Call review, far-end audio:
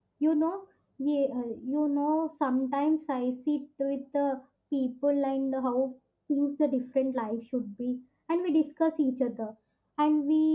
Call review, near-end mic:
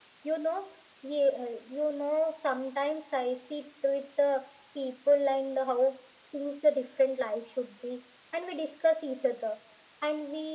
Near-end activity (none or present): none